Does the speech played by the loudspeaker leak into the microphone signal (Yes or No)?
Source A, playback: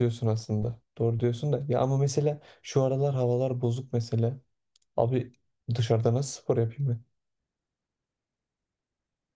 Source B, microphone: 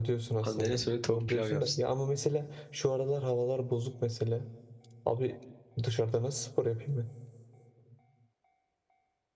Yes